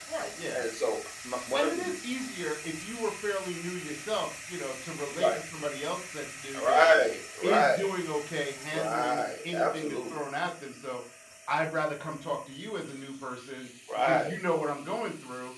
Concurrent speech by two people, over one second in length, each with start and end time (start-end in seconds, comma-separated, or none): 8.7-10.2